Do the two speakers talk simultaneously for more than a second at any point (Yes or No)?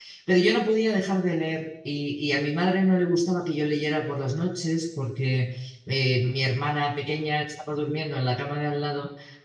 No